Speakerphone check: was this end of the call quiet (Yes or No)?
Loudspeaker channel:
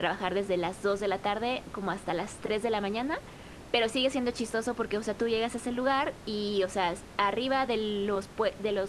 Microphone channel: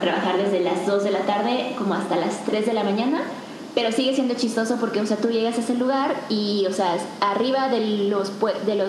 Yes